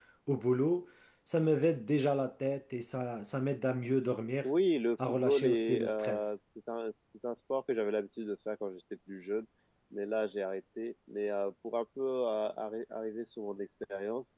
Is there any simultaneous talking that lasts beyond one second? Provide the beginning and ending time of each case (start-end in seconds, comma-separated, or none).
5.1-6.3